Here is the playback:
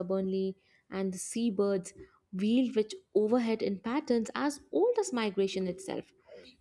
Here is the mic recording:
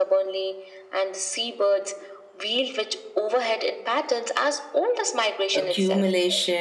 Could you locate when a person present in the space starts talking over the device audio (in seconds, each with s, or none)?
5.5 s